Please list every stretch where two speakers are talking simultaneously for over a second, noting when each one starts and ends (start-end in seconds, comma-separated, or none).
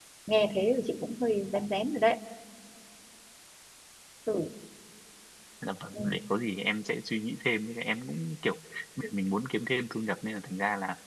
none